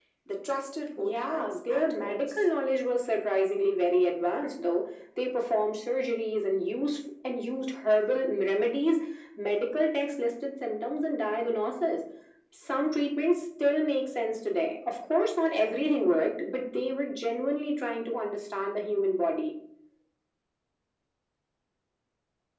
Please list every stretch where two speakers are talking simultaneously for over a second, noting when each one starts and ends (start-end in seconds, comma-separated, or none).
1.0-2.5